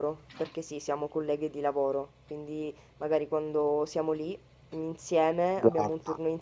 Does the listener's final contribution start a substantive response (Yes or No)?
No